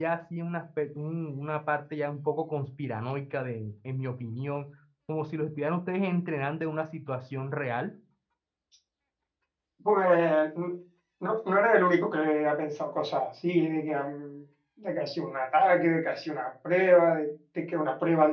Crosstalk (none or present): none